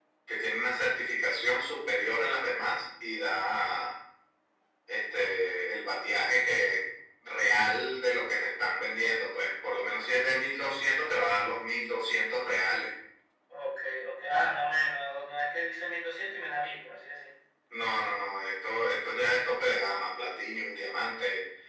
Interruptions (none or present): none